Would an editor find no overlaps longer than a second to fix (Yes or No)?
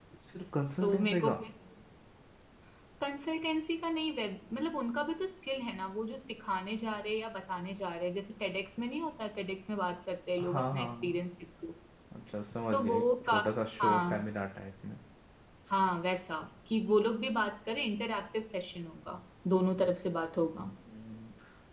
No